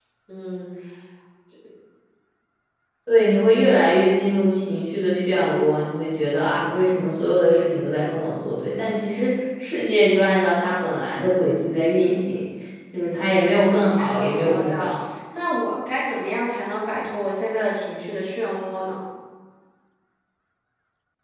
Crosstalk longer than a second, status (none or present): present